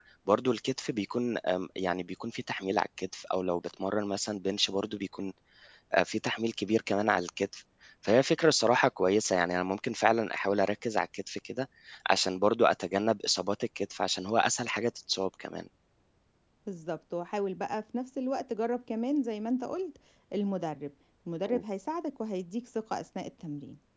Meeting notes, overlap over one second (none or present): none